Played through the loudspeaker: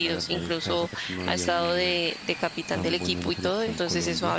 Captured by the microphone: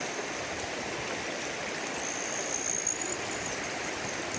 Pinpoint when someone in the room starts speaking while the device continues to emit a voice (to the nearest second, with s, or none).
none